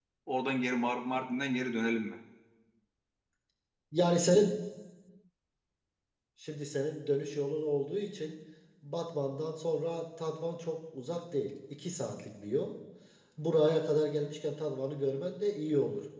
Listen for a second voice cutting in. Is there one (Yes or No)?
No